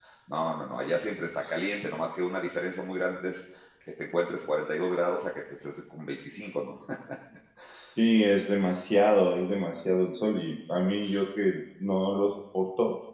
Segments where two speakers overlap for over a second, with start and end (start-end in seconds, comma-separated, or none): none